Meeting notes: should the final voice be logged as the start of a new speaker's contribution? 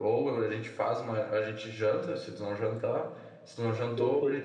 No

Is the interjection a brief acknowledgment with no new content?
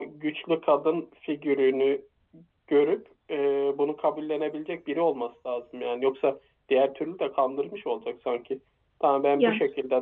Yes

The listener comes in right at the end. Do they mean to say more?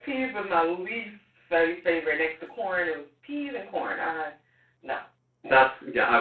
Yes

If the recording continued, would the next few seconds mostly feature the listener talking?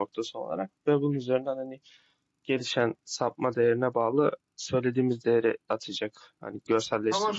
Yes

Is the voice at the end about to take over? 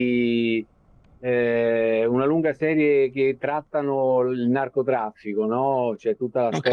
No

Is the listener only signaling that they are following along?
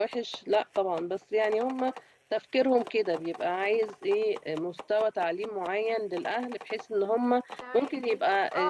No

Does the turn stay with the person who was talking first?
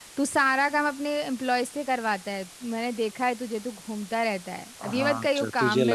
No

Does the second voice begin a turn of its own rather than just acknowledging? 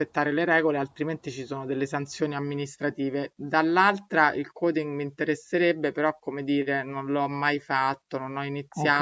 No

